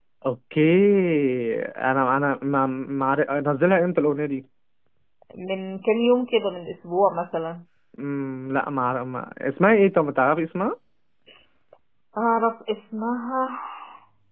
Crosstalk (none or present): none